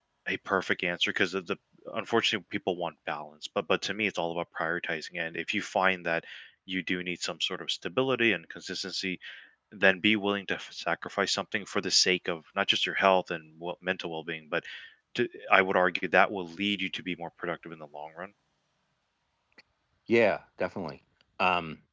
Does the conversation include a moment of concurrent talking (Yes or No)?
No